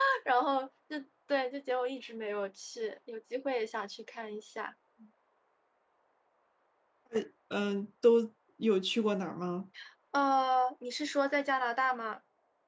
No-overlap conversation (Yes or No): Yes